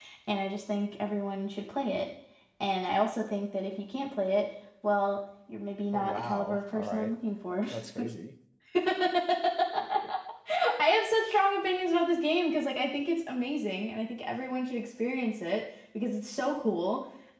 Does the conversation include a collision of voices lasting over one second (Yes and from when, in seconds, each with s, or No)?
Yes, from 5.9 s